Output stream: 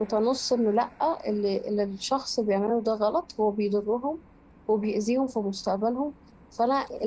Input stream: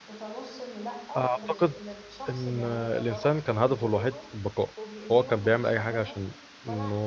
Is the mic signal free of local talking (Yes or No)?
No